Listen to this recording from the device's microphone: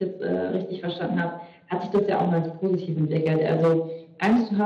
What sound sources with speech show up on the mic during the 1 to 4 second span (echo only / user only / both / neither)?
user only